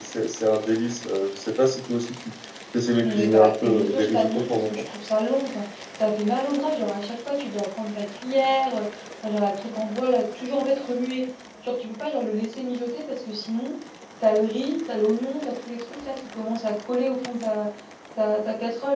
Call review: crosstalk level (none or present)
present